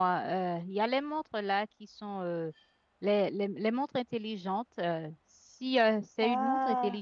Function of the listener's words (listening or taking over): listening